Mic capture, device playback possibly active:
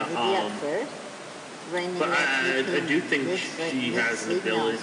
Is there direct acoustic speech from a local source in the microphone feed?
No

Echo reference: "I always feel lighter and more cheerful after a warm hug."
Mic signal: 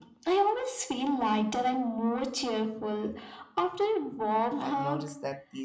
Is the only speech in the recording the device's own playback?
No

